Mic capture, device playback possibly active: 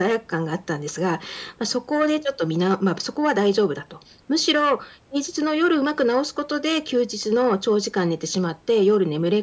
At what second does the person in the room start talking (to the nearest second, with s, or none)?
none